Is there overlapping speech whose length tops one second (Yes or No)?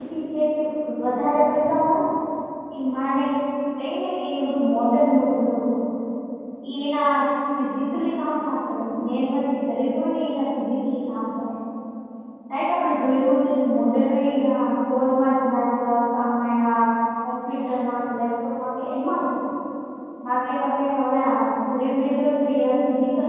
No